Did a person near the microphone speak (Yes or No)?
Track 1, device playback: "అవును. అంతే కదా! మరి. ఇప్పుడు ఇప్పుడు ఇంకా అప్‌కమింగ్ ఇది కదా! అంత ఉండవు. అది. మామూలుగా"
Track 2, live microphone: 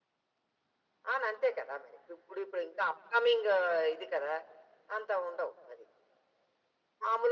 No